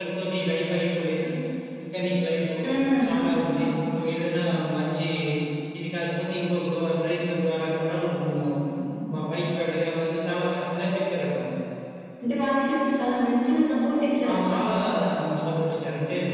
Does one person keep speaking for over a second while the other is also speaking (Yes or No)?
No